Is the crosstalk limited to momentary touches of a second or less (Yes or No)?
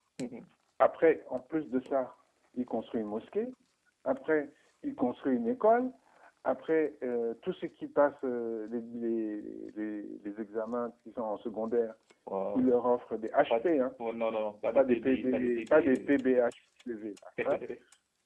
No